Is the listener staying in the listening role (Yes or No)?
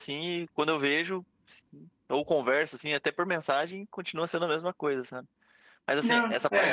Yes